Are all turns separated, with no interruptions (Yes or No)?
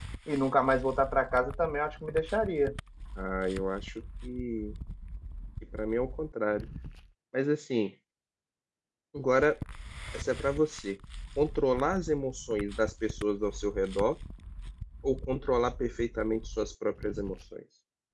Yes